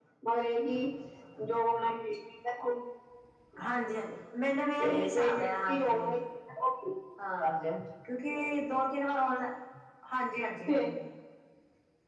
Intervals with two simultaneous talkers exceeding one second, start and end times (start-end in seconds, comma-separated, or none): 4.8-6.1